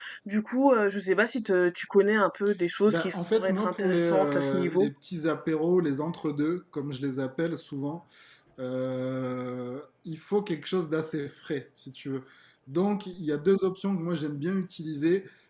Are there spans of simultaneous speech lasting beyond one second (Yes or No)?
Yes